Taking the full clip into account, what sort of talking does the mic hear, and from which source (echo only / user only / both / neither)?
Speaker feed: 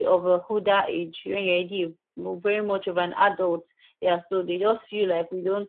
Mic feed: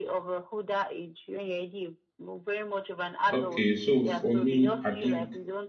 both